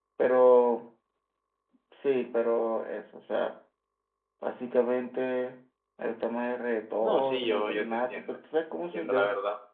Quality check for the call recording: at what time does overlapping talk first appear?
7 s

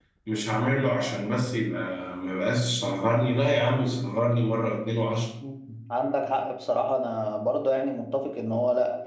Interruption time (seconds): none

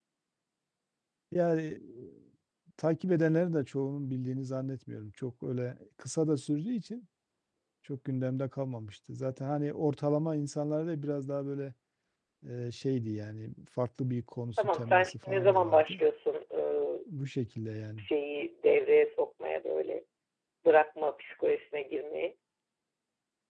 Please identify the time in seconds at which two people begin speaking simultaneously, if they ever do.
15 s

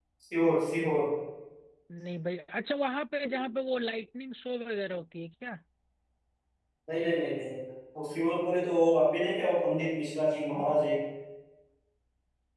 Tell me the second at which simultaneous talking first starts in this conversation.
none

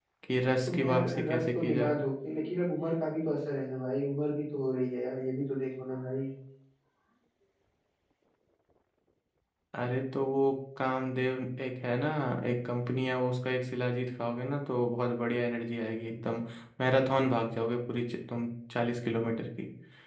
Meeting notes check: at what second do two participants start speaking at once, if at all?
1 s

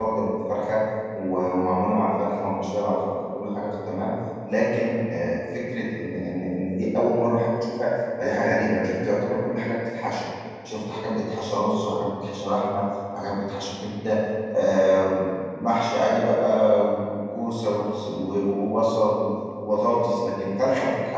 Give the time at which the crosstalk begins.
none

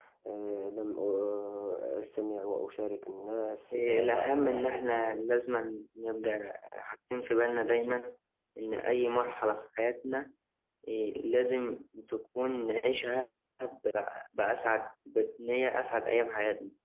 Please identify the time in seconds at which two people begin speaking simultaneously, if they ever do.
4 s

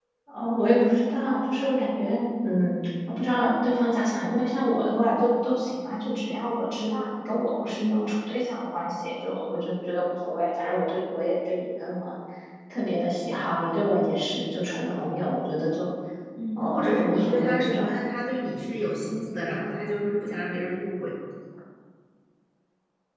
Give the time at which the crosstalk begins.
17 s

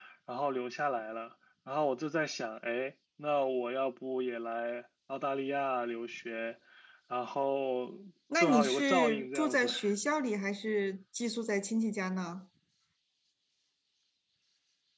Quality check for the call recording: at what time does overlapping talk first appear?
8 s

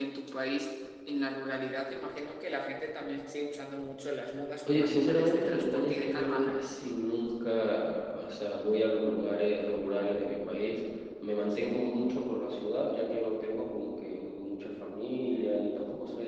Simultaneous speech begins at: 5 s

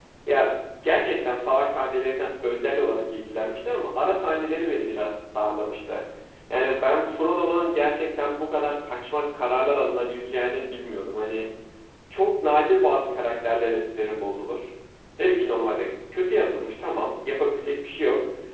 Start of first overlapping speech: none

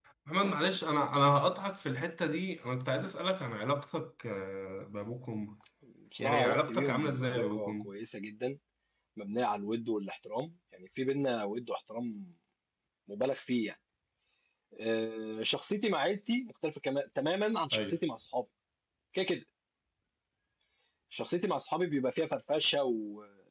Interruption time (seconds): 6 s

